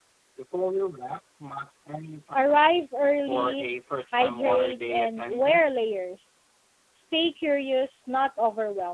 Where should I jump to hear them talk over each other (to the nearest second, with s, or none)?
2 s